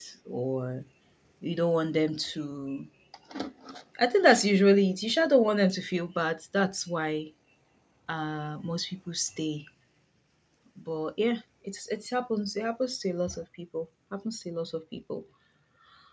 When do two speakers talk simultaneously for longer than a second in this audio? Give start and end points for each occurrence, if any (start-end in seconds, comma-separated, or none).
none